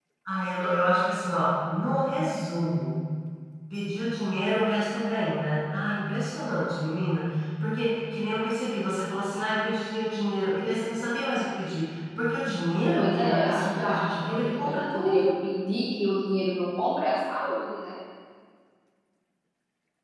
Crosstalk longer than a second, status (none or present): present